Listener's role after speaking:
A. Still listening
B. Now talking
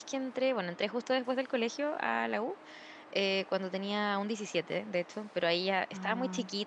A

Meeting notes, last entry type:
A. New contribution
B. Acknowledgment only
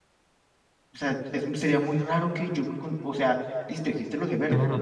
A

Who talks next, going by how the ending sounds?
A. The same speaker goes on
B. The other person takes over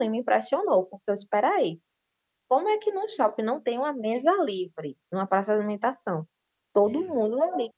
A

